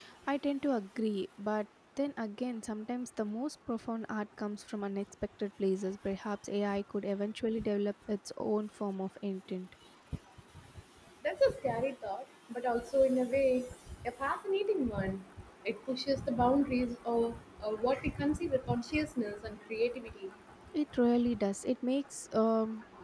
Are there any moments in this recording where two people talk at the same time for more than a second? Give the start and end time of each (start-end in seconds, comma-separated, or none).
none